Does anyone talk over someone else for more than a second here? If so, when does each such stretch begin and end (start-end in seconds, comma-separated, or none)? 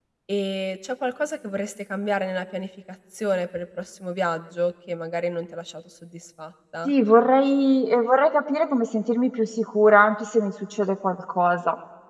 none